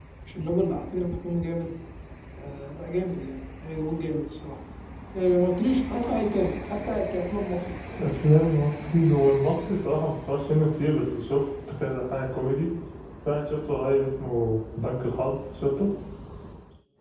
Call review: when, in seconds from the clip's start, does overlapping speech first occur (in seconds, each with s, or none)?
none